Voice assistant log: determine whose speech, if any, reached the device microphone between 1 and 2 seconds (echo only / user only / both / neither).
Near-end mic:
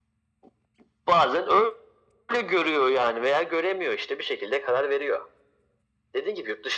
echo only